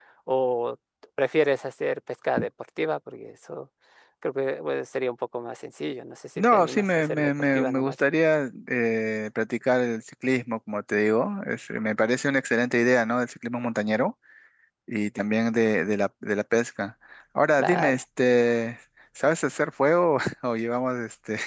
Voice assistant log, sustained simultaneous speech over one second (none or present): present